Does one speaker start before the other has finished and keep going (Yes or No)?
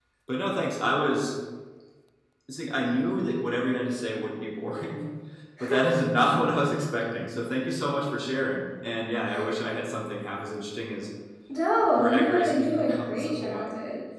Yes